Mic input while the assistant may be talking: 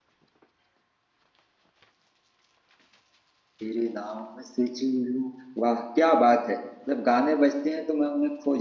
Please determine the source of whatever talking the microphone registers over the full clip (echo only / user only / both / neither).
user only